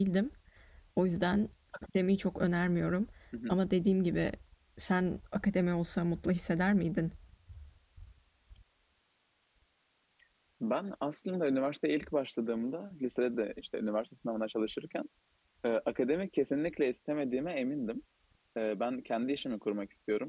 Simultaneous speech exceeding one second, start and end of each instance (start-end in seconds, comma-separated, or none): none